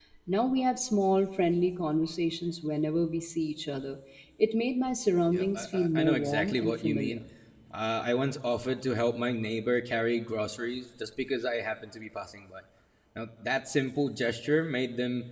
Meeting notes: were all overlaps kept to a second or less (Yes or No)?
No